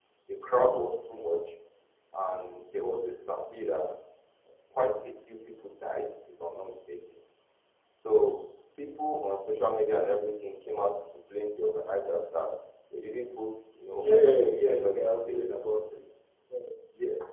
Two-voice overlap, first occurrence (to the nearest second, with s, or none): 14 s